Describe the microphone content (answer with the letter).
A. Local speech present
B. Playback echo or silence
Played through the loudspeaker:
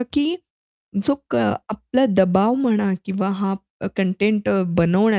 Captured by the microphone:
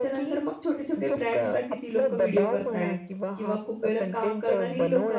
A